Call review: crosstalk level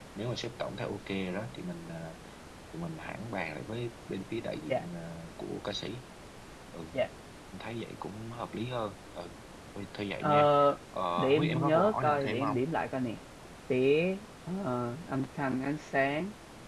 present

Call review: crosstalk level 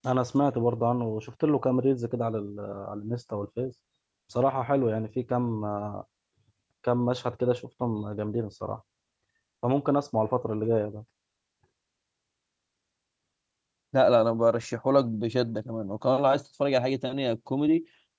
none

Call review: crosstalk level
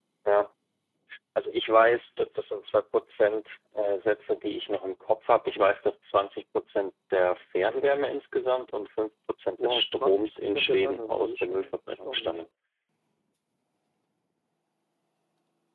present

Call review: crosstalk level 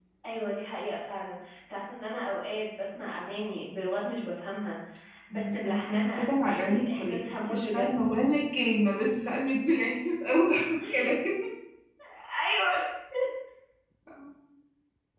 present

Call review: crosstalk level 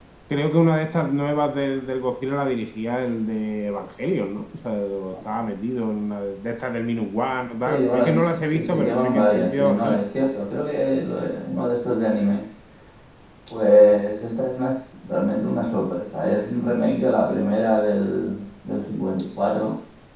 present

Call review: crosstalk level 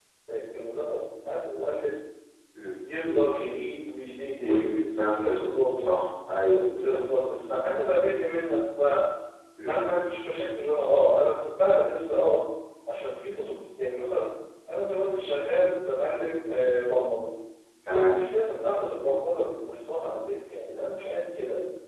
present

